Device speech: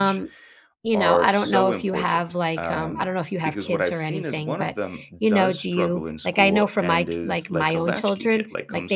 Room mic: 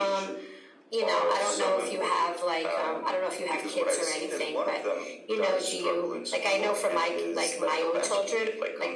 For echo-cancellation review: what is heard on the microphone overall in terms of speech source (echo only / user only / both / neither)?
echo only